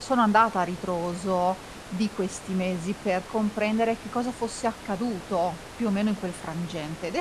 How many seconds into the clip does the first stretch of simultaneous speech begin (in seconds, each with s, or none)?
none